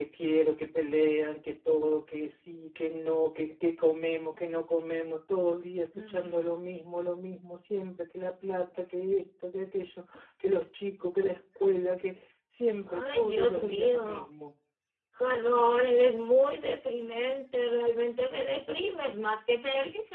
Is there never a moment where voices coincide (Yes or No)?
No